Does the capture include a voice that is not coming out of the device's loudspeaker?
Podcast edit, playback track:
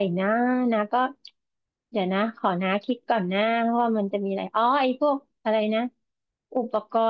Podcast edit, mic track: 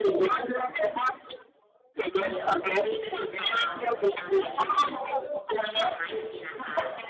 Yes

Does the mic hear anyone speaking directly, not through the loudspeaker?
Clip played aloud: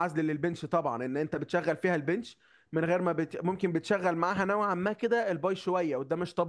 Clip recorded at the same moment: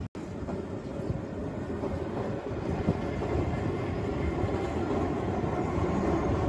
No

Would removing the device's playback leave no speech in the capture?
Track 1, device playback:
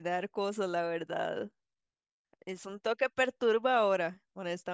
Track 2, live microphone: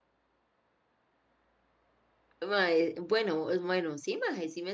No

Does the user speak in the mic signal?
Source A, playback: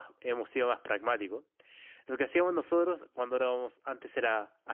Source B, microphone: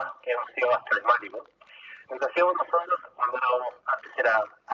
No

